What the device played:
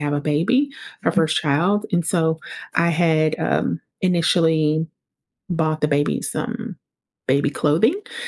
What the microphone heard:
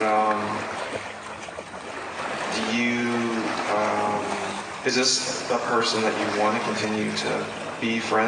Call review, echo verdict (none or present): none